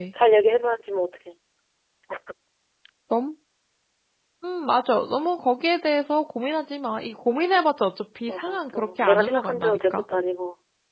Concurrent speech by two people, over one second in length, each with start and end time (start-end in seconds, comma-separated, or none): 8.3-10.0